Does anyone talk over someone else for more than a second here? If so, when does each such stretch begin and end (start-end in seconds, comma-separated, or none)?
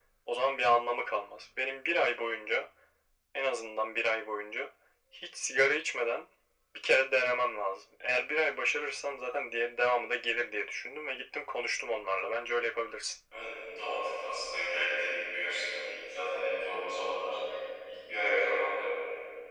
none